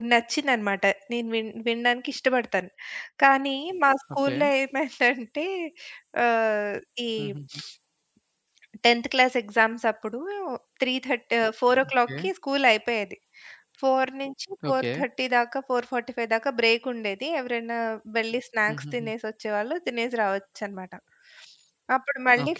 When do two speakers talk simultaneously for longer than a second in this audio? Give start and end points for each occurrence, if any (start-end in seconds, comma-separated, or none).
none